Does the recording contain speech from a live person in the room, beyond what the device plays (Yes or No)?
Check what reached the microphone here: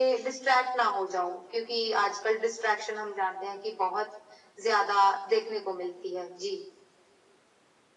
No